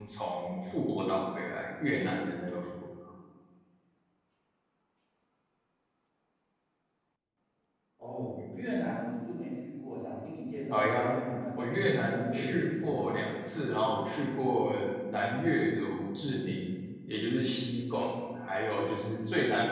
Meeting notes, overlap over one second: present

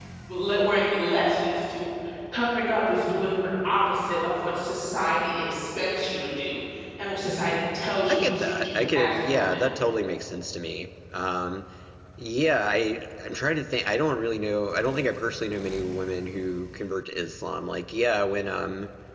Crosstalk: present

